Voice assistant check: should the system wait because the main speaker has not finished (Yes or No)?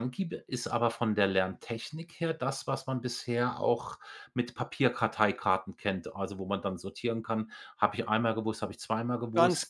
No